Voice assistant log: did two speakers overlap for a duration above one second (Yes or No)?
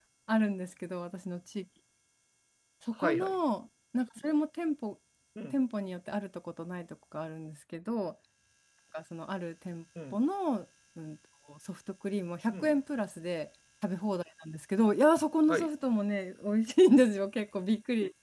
No